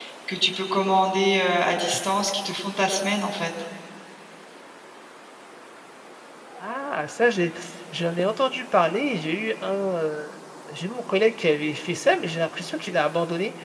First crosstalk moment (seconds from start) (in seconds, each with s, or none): none